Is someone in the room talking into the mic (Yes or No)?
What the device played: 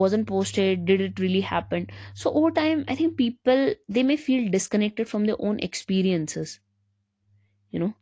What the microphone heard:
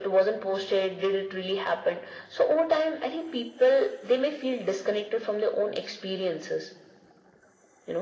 No